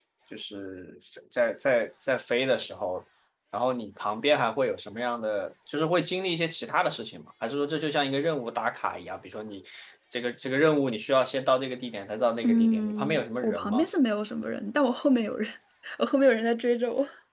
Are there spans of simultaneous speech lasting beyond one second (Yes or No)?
Yes